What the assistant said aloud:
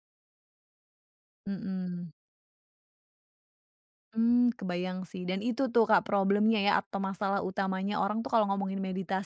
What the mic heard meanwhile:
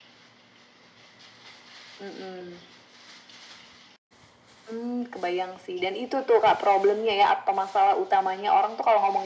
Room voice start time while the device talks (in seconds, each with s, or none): none